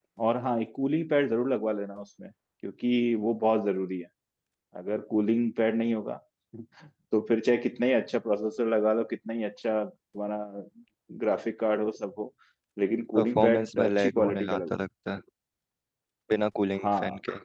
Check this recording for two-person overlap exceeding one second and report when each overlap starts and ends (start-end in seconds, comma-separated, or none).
13.2-14.7